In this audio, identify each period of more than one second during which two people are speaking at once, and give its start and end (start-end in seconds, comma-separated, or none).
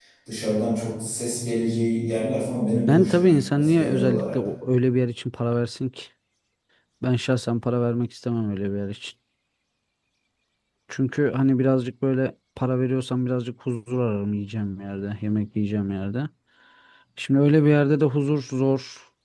2.9-4.4